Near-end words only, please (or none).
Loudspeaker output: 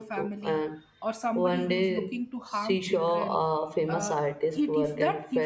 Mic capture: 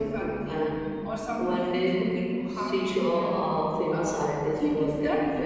none